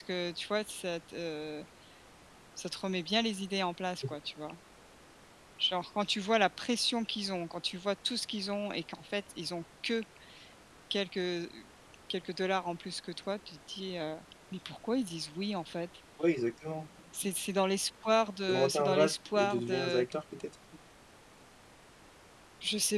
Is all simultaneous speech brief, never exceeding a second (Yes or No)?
No